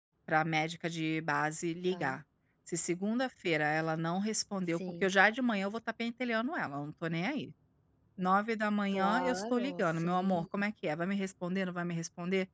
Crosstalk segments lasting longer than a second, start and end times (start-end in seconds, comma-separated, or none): 8.9-10.4